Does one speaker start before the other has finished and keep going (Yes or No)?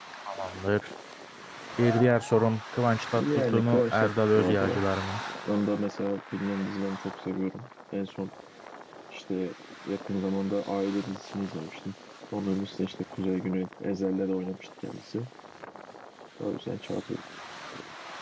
Yes